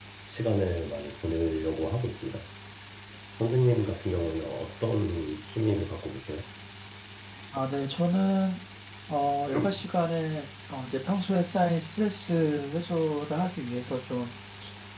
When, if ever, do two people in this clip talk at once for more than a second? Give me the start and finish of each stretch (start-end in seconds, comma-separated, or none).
none